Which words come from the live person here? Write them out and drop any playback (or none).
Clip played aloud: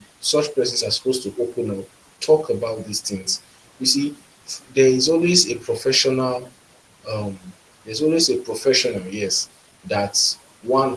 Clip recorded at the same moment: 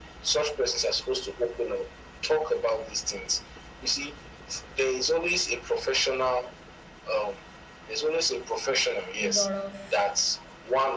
a lot of